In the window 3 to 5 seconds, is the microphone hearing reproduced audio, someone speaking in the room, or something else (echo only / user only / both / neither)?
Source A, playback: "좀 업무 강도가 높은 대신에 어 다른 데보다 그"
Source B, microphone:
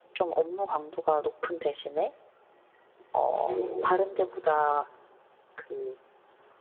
both